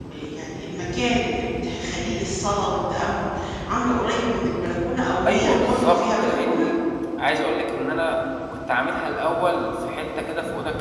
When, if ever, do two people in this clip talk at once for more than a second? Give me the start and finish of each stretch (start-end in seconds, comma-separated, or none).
5.3-6.7